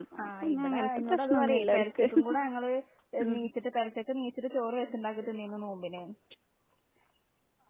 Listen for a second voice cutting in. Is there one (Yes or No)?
Yes